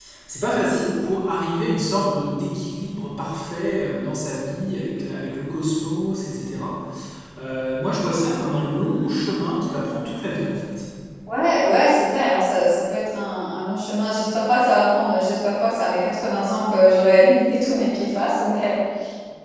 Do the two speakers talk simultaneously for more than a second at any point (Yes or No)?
No